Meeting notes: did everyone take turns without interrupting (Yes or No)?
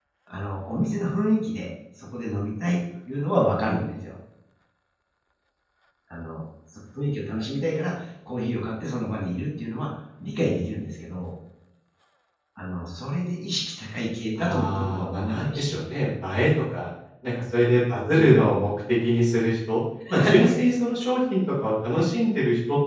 No